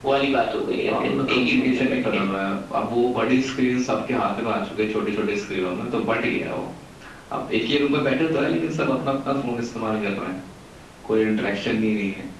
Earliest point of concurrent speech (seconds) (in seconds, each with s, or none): 0.9 s